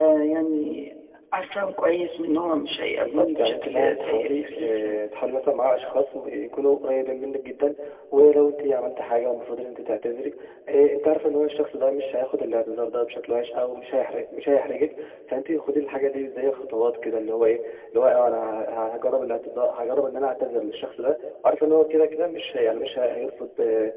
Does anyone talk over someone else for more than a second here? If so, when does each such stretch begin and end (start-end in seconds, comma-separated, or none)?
3.0-5.0